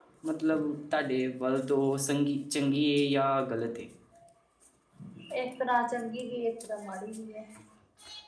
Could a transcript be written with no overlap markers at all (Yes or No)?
Yes